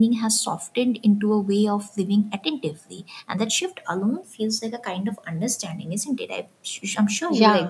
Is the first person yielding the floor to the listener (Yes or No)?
Yes